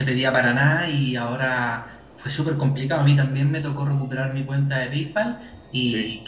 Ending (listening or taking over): listening